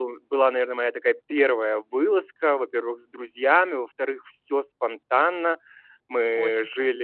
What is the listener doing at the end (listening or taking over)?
listening